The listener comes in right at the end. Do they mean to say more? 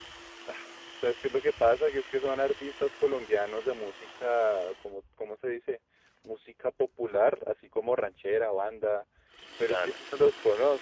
No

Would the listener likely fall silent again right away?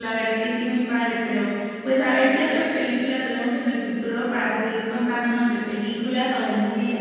No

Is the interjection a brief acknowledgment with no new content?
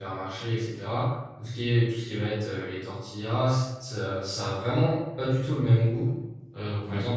Yes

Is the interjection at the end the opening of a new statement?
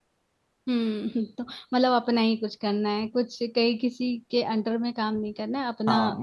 Yes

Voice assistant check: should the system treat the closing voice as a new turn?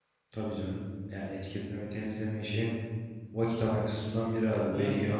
No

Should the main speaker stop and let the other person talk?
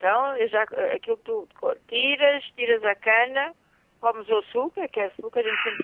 No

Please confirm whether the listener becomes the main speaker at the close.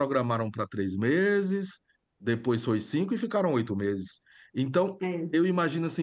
No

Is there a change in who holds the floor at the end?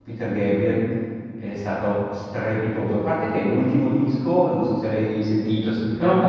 No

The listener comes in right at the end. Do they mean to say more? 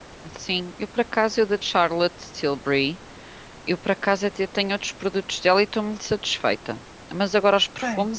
No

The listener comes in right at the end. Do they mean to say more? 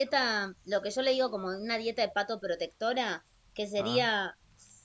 No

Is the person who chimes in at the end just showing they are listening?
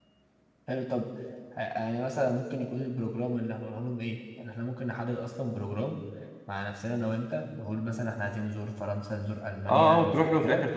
No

